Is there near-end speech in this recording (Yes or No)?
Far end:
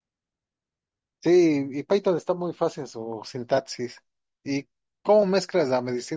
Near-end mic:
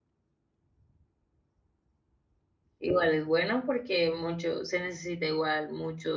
Yes